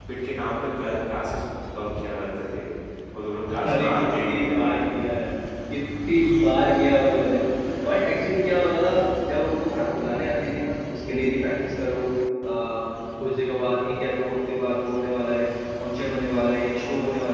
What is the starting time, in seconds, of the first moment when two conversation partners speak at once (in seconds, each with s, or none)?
3.6 s